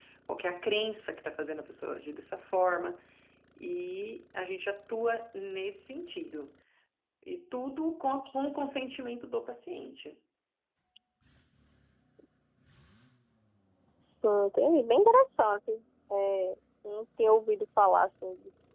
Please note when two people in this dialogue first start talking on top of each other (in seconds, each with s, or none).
none